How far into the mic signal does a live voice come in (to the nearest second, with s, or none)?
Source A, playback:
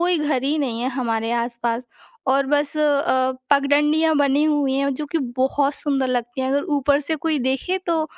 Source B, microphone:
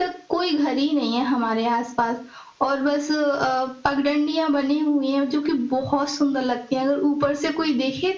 none